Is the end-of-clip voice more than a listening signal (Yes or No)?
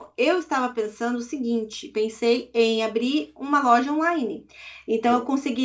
No